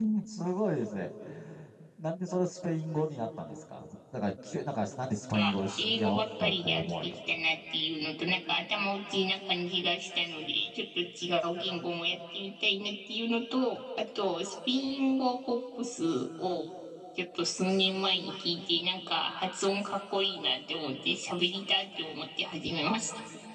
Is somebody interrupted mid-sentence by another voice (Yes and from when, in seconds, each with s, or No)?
Yes, from 5.3 s